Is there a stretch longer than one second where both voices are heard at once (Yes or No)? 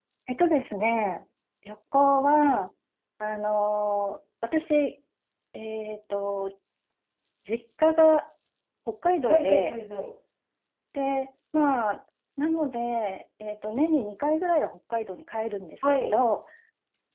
No